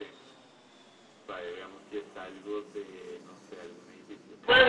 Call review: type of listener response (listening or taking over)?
taking over